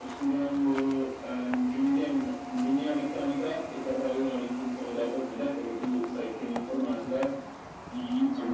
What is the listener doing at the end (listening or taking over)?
listening